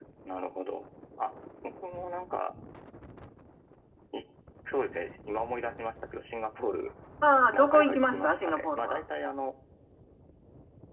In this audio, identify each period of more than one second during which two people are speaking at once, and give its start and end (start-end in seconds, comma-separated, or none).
7.5-9.0